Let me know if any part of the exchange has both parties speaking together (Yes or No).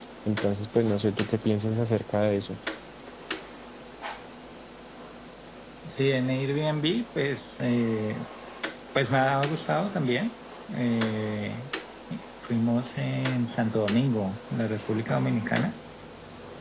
No